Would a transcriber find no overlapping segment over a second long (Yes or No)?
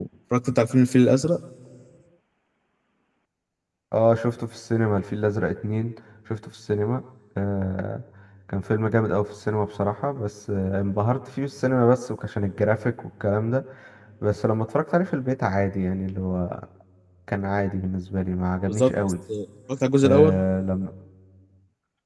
Yes